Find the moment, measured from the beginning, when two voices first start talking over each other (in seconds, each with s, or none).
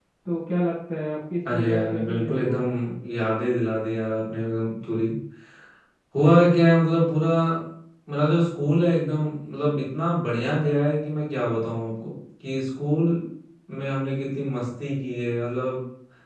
1.4 s